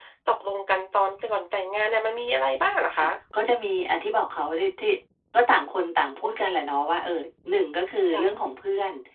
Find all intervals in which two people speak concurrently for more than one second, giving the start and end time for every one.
none

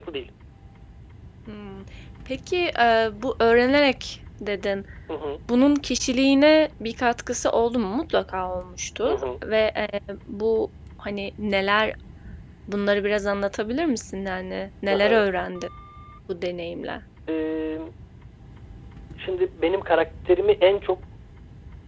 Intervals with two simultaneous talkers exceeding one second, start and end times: none

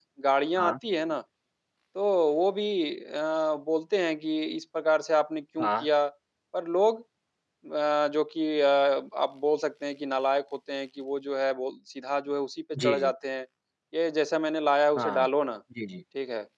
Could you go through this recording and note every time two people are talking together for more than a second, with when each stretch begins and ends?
none

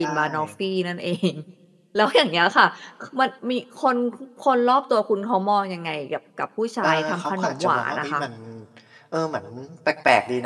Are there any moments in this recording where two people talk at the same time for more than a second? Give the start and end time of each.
6.8-8.2

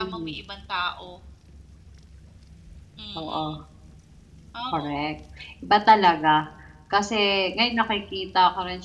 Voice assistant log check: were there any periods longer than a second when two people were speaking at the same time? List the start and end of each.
none

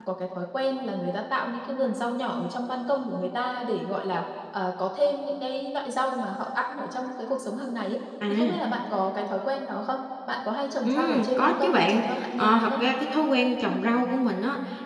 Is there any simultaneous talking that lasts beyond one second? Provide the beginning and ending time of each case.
10.8-12.8

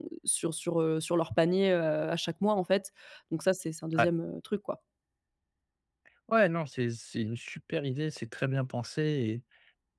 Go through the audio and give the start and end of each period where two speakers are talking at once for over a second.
none

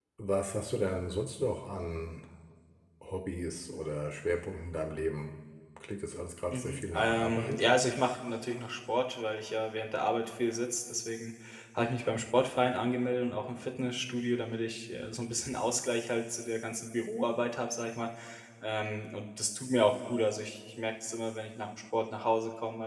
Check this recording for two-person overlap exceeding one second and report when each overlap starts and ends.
6.5-7.7

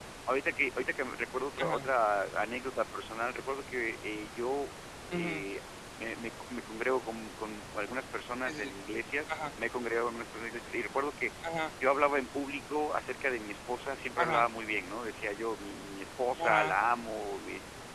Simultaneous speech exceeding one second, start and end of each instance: none

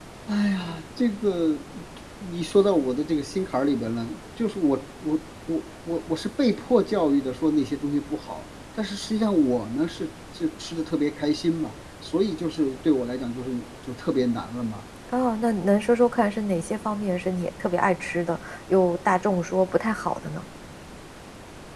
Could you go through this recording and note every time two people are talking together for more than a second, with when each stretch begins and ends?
none

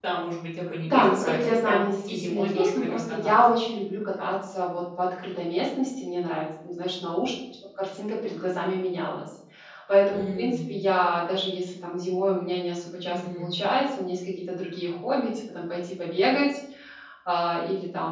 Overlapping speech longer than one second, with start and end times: 0.8-3.3

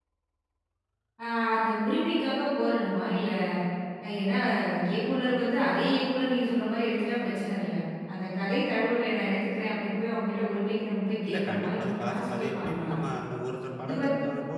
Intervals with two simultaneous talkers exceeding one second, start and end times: 11.2-12.9

